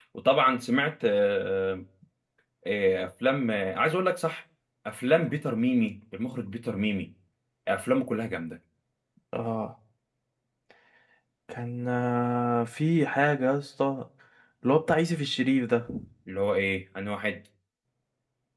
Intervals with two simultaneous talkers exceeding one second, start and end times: none

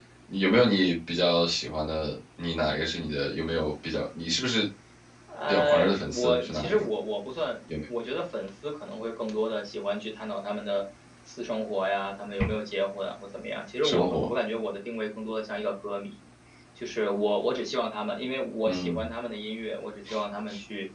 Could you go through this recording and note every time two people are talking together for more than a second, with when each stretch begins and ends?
5.5-6.8

